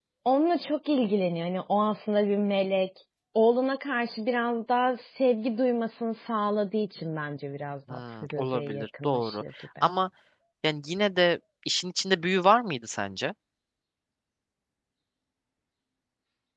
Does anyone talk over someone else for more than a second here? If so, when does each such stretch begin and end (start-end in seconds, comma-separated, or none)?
7.9-9.4